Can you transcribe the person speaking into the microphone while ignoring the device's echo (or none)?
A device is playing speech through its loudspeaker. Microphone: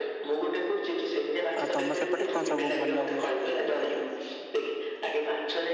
ଆଉ ତମ ସେପଟେ କଁ ସବୁ ଭଲ ହୁଏ।